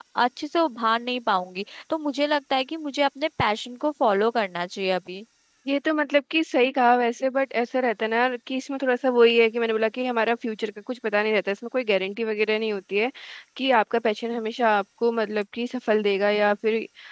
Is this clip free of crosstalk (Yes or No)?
Yes